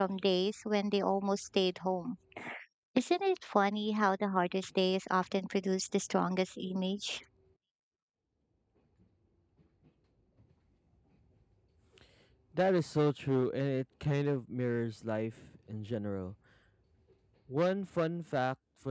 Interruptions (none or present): none